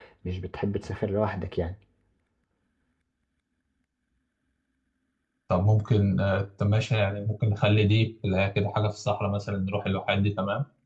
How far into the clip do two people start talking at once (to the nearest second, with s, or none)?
none